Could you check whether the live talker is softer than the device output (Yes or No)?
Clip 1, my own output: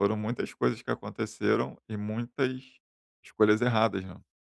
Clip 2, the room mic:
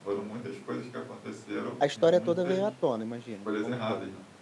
No